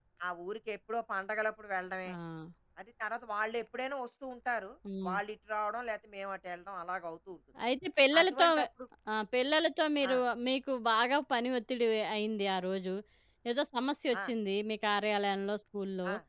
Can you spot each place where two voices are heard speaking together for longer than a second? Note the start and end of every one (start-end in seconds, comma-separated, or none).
none